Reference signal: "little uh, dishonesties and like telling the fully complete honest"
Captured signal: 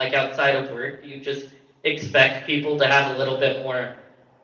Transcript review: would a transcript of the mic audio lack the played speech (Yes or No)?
Yes